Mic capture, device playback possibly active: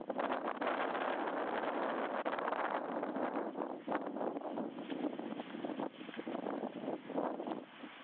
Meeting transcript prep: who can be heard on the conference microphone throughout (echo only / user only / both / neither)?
neither